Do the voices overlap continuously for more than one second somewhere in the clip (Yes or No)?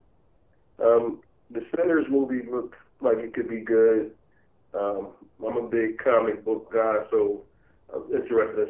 No